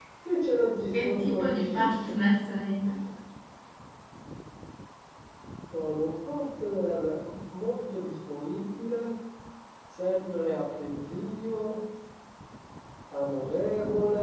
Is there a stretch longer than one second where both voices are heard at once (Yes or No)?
Yes